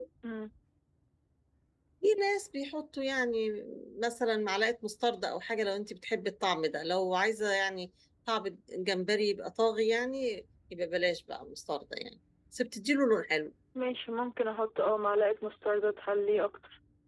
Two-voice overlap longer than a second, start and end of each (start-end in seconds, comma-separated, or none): none